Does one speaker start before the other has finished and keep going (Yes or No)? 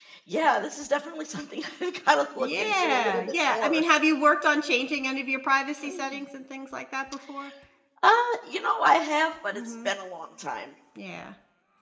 Yes